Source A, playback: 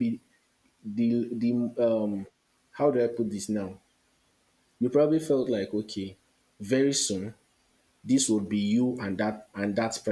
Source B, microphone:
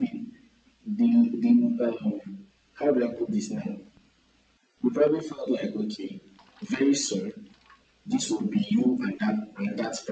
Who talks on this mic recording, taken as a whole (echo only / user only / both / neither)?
echo only